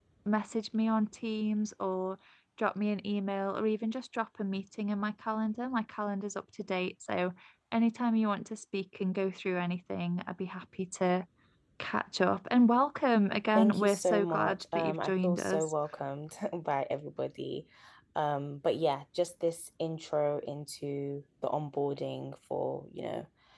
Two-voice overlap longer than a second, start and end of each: 13.6-15.7

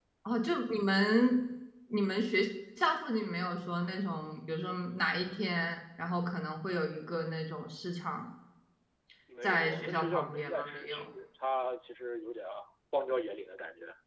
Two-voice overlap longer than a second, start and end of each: 9.4-11.1

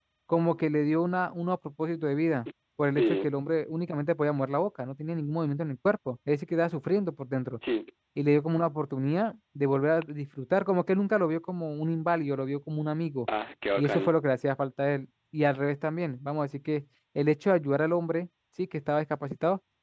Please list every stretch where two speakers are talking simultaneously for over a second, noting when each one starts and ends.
none

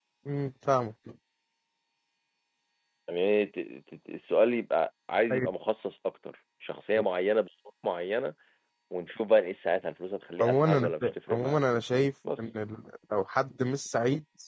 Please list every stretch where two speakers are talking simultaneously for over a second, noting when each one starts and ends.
10.4-11.6

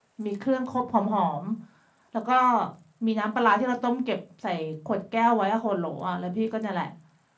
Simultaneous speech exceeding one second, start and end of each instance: none

